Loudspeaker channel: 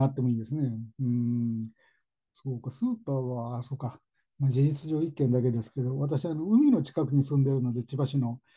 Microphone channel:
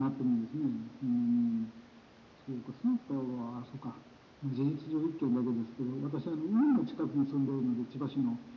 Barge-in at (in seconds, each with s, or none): none